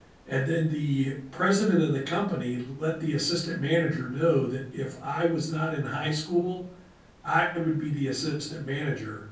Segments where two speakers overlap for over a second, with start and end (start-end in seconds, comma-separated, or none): none